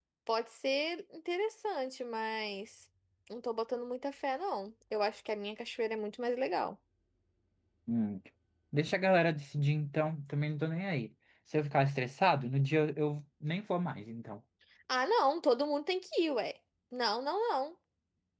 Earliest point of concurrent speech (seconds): none

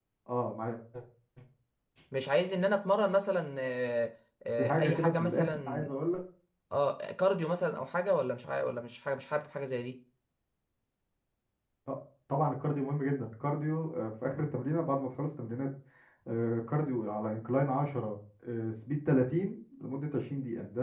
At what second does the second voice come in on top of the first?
4.6 s

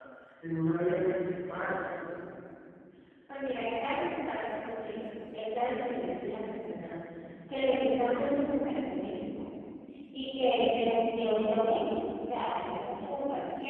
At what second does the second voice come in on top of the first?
none

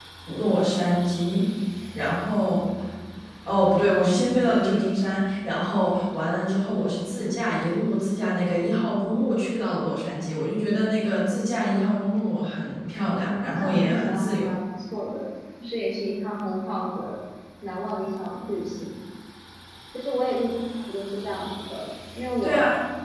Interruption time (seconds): 13.1 s

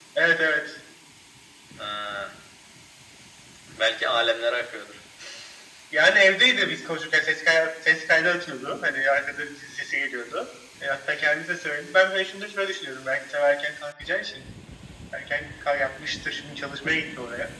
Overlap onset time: none

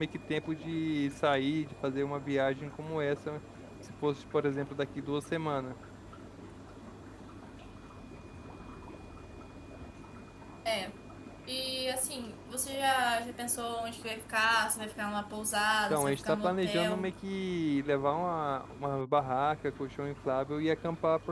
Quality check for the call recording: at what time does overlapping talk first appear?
15.9 s

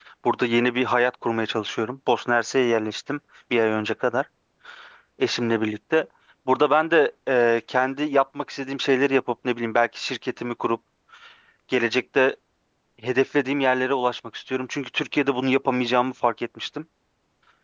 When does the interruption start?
none

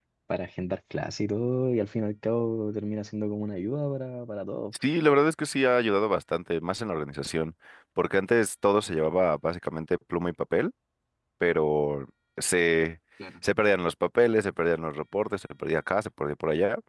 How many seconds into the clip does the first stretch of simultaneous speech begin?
none

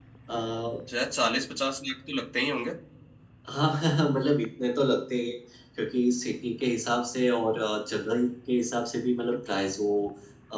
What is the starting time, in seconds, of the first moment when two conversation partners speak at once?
none

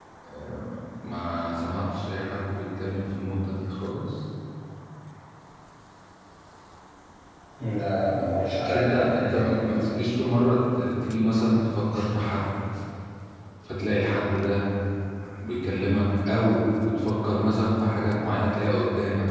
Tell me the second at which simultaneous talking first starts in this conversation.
8.6 s

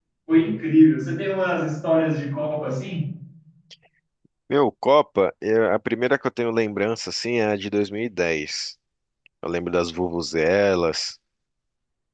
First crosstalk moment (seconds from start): none

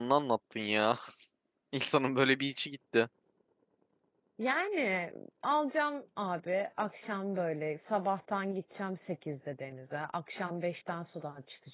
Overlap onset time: none

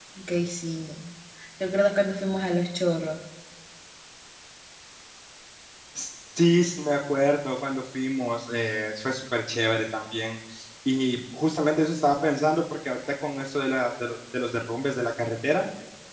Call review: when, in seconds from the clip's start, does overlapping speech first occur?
none

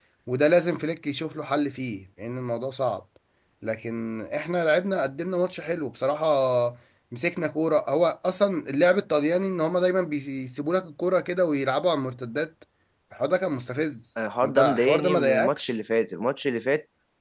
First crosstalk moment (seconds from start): 14.4 s

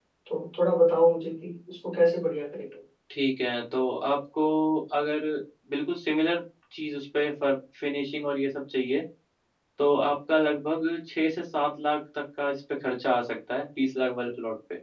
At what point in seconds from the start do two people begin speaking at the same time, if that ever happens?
none

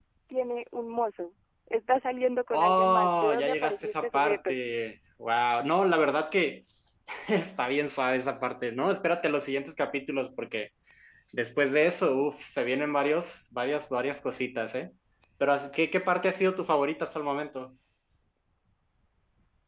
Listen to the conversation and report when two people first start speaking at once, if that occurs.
2.5 s

